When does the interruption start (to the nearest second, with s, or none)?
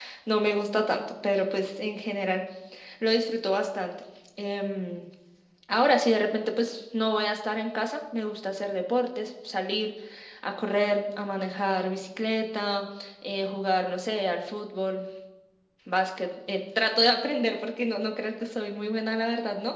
none